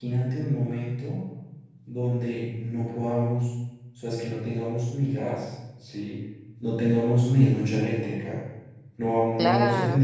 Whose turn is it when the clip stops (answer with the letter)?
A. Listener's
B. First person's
A